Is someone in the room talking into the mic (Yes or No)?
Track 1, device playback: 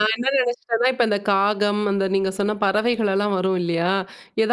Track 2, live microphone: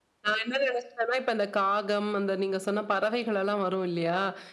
No